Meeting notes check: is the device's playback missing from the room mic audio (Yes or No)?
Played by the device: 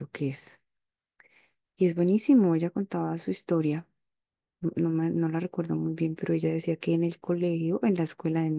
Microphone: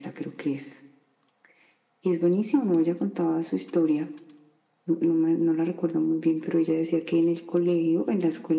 No